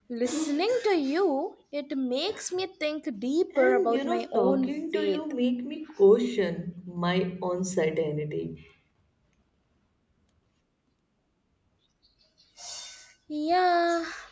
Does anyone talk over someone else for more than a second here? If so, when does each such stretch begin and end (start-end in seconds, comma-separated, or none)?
3.6-5.2